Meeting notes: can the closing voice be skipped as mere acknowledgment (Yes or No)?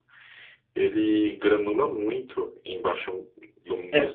No